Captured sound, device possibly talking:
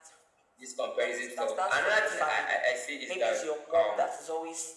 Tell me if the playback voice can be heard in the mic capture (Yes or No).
Yes